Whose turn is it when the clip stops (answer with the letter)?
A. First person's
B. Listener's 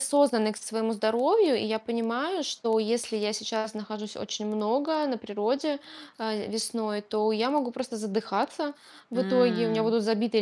A